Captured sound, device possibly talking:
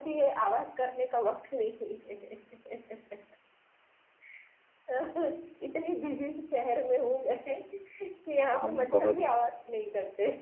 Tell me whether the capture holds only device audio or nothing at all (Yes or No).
No